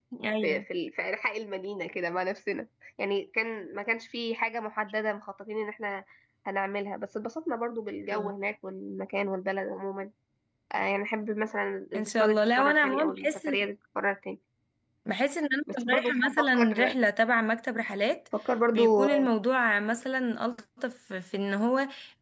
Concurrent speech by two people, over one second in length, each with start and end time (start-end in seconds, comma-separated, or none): 11.9-13.7, 15.7-16.9